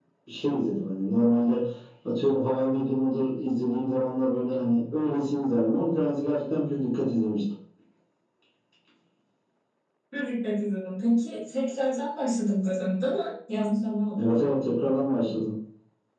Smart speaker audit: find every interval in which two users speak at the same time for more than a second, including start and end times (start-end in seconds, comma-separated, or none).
none